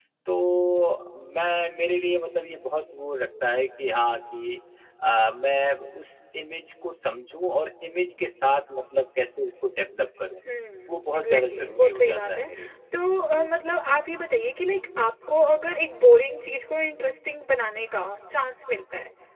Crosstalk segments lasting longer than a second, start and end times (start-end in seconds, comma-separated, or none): 10.9-12.5